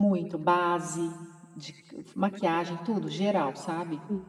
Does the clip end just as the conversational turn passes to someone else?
Yes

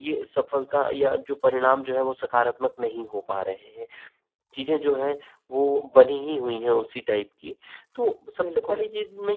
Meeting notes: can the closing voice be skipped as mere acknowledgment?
Yes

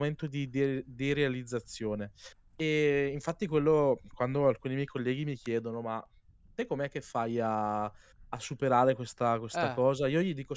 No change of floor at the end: Yes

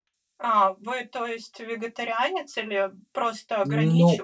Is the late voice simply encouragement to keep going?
No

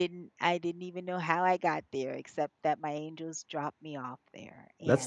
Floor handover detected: Yes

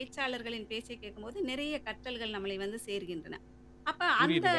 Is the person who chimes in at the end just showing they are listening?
No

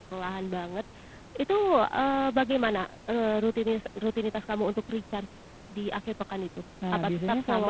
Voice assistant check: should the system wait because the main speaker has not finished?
No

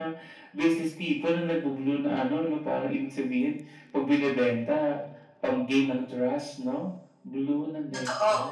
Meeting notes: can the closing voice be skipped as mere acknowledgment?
No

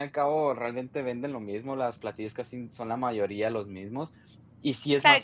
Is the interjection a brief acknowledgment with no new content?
No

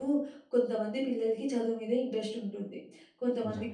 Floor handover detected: No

